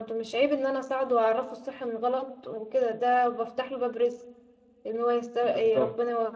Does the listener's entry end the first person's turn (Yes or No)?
No